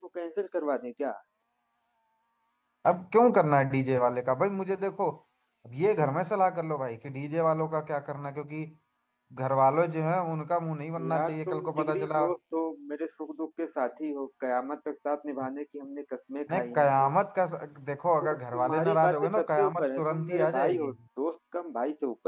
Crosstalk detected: Yes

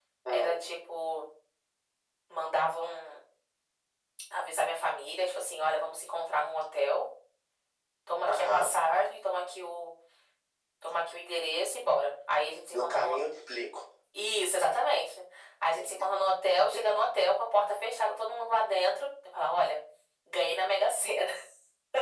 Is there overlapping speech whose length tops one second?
No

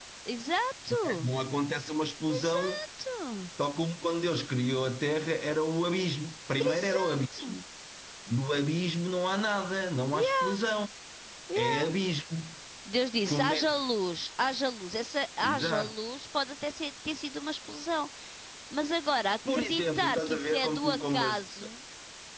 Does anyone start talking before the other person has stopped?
Yes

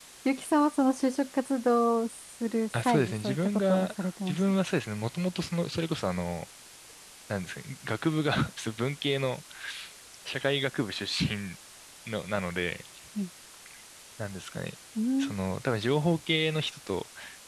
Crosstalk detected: Yes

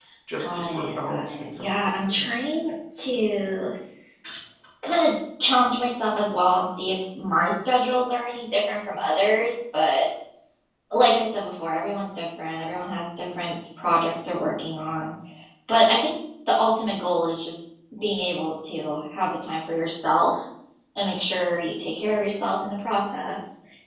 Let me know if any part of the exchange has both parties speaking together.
Yes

